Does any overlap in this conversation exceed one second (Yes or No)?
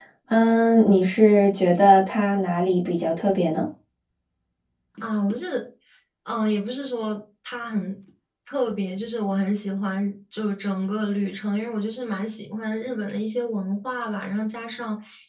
No